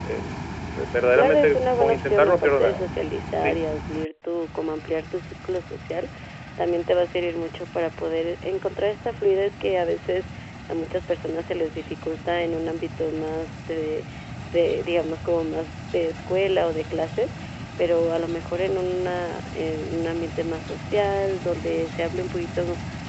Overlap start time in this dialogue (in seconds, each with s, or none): 1.1 s